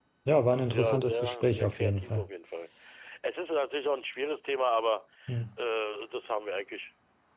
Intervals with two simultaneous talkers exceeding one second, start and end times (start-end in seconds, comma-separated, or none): 0.7-2.3